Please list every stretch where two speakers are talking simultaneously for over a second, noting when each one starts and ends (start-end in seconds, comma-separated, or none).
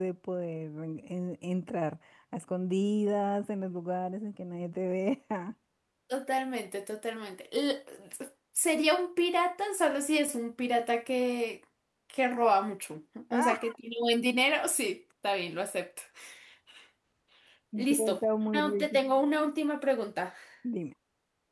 17.8-19.0